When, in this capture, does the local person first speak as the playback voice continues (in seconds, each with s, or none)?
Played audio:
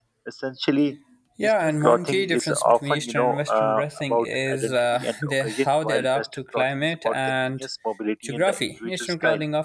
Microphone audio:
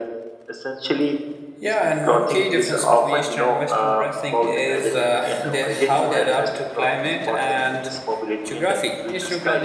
none